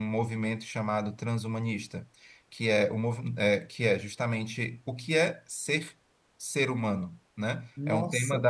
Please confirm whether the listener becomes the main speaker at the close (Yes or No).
No